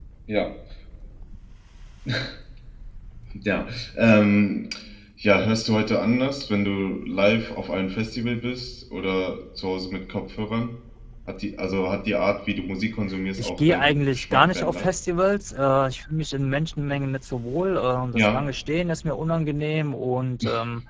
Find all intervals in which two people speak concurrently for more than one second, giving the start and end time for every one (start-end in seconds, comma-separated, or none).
13.4-14.8